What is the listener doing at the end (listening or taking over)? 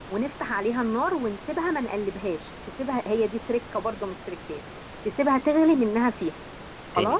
taking over